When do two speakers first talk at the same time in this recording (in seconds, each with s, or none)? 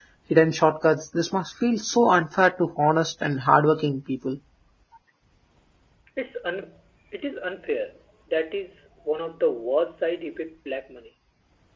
none